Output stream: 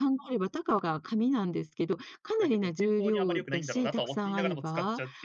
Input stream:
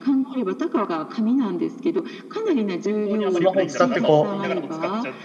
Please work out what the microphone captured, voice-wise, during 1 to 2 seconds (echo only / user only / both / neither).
echo only